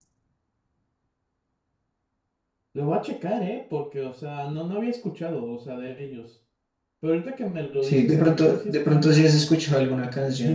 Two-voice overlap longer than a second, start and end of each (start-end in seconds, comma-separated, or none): 7.8-9.5